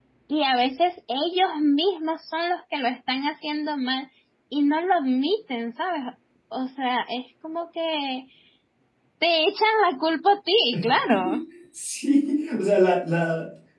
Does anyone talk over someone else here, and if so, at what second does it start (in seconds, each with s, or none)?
none